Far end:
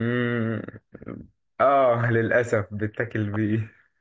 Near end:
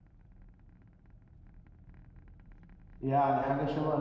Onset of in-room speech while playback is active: 3.0 s

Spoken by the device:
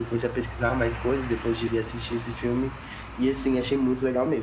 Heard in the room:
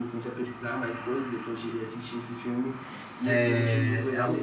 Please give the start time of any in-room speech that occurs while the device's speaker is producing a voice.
3.2 s

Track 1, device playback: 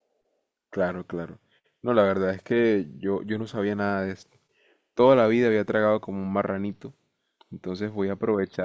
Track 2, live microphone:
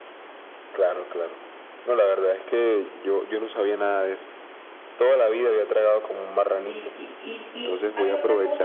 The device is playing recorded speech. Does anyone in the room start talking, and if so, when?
6.4 s

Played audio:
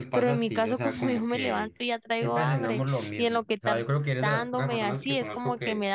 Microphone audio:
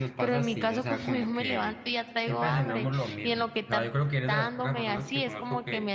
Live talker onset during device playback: none

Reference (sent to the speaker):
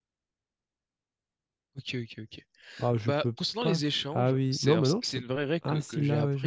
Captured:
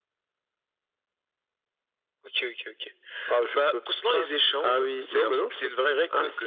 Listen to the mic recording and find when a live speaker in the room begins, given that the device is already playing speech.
none

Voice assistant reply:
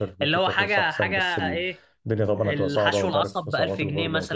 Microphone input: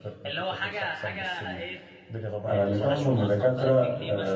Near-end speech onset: 2.5 s

